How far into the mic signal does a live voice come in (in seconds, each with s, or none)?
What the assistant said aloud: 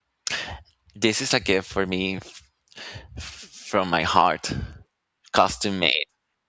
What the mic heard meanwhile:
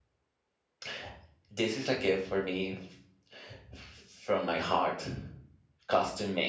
none